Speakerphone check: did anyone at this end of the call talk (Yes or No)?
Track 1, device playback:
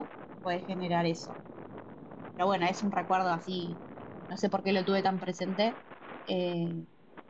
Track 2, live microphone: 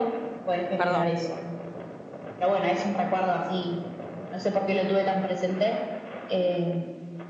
Yes